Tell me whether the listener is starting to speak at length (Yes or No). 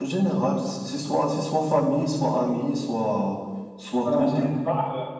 Yes